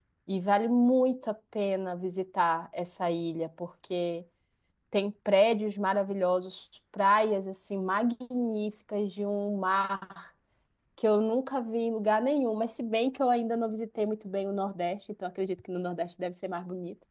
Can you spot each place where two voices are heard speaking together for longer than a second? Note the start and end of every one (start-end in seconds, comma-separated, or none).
none